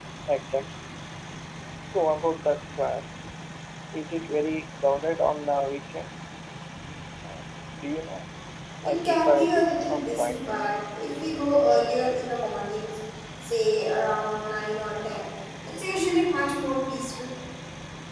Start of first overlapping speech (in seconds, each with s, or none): 8.9 s